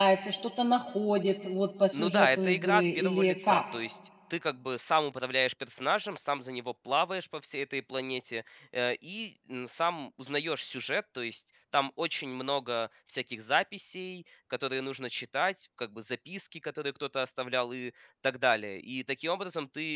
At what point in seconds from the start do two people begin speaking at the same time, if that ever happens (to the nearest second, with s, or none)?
2 s